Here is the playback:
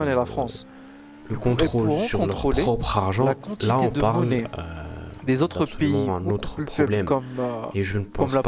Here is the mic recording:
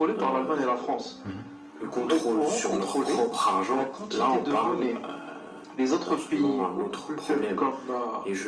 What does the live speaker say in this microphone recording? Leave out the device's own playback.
mhm.

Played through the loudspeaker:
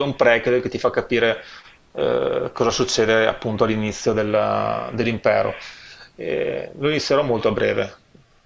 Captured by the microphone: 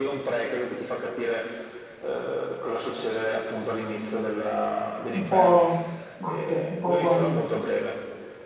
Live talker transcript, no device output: un po' matto, un po' fuori.

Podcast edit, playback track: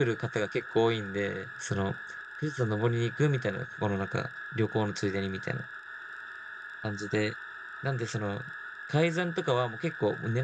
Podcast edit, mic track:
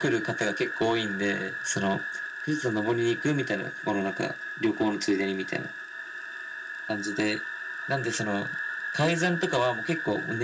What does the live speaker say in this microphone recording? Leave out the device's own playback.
none

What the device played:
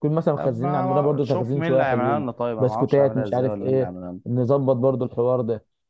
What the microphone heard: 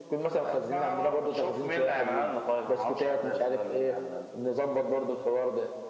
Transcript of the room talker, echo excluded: none

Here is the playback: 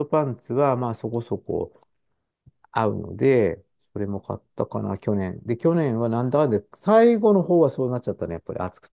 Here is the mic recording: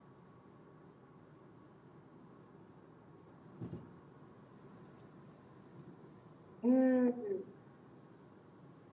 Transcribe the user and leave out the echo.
うん。

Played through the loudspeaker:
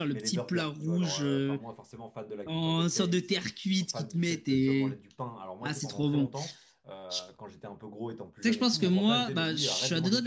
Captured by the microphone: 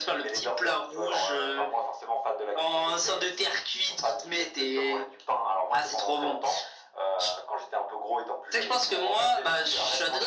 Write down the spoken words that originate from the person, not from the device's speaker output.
none

